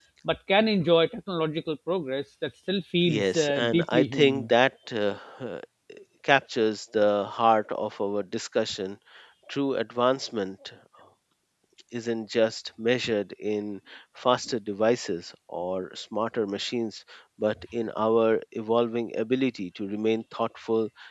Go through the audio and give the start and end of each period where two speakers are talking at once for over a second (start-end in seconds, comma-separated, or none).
3.1-4.5